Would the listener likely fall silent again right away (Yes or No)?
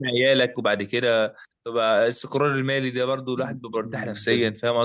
No